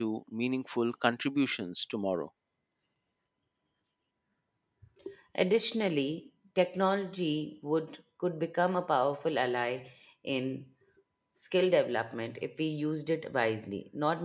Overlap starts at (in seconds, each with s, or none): none